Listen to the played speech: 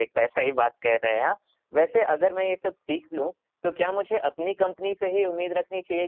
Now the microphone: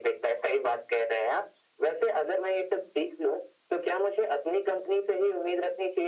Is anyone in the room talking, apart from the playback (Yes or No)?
No